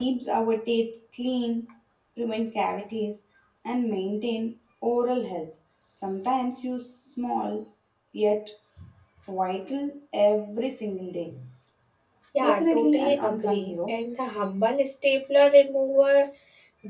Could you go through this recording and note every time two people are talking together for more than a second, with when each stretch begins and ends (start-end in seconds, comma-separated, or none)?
12.4-13.9